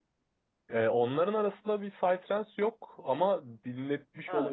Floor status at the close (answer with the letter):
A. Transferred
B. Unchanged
B